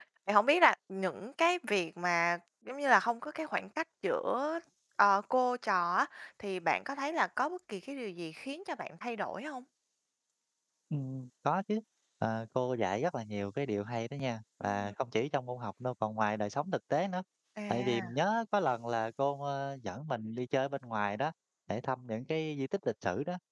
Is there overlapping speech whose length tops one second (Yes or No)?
No